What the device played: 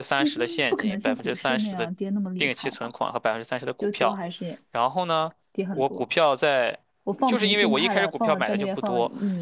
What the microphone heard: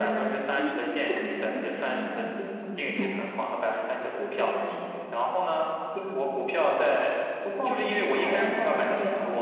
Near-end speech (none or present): present